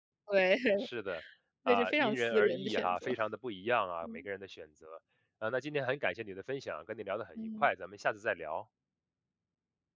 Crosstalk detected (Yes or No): Yes